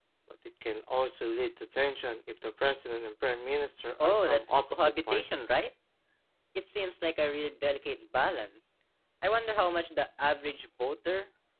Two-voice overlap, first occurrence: 4.0 s

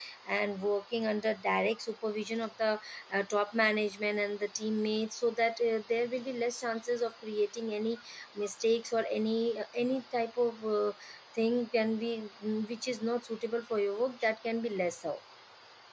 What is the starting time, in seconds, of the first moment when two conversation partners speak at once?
none

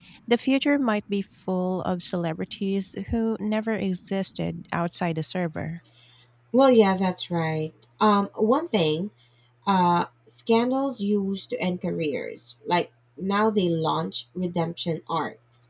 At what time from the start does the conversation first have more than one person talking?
none

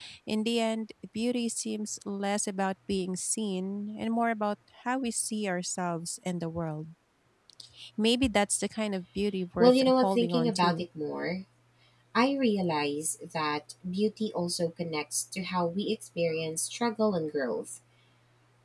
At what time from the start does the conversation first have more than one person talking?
9.6 s

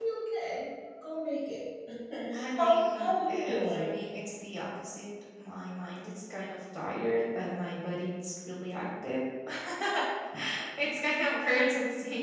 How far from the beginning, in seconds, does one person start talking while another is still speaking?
2.6 s

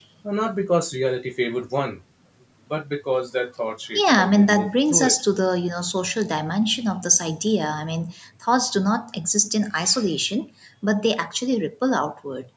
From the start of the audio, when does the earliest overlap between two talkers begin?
3.9 s

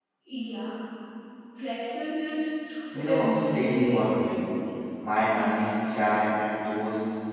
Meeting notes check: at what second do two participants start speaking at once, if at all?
2.9 s

